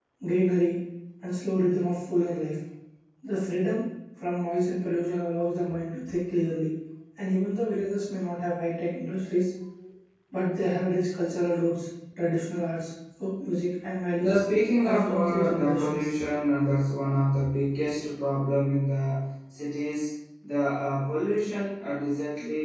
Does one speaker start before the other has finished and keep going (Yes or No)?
Yes